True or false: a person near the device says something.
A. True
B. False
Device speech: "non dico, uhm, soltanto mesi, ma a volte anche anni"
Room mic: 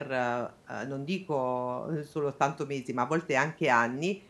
B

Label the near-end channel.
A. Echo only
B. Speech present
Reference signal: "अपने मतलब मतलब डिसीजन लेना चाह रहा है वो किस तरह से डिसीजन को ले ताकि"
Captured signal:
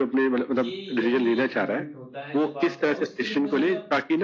B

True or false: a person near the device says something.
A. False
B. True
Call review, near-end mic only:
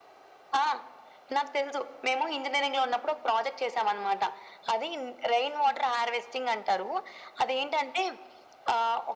A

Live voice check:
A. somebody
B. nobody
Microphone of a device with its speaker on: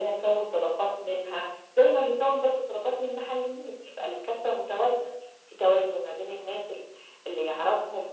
B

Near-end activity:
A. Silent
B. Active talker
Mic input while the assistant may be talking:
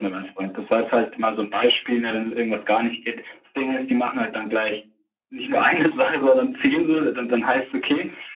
A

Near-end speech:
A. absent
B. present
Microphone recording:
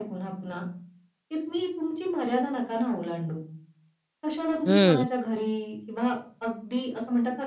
B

